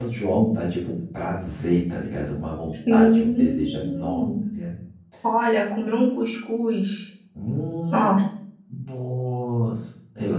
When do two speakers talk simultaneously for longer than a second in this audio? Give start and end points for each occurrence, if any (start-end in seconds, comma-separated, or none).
2.7-4.3